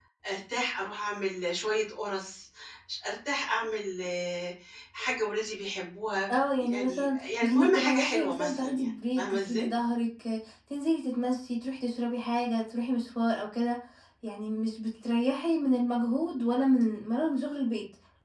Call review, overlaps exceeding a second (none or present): present